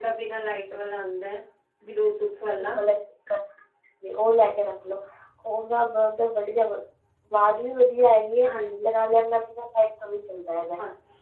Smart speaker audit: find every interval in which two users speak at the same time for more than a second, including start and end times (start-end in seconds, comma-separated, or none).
none